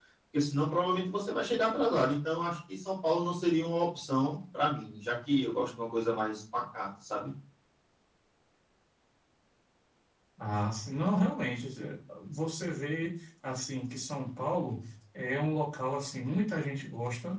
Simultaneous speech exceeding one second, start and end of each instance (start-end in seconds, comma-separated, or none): none